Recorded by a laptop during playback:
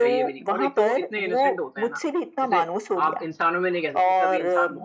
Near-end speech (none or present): present